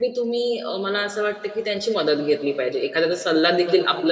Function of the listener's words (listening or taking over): listening